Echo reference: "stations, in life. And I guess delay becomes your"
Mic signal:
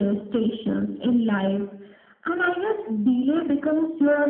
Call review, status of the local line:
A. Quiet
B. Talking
A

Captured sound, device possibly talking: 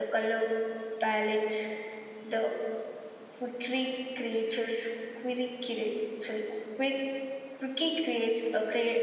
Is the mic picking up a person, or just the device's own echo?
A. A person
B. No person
B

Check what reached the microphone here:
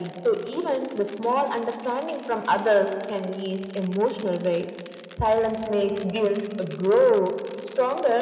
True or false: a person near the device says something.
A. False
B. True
A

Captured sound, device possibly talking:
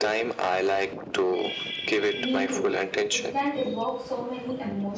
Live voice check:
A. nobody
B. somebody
B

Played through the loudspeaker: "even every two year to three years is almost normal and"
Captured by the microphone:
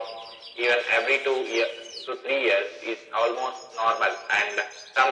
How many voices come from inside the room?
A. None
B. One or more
A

